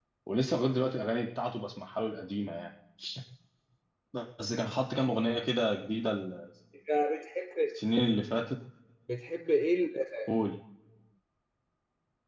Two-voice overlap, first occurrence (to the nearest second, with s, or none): none